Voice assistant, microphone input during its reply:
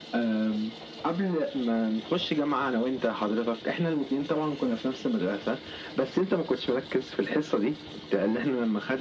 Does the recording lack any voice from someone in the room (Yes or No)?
Yes